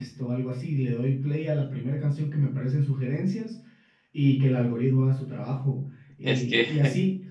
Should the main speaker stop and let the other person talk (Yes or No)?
No